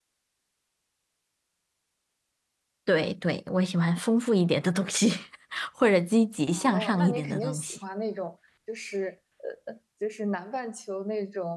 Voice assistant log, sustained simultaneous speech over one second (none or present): present